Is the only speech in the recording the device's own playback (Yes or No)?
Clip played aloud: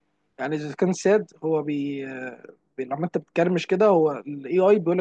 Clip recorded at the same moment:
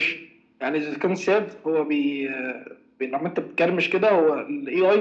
Yes